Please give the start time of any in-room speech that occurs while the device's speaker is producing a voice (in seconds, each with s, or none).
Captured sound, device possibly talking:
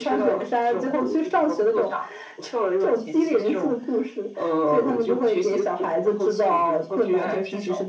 none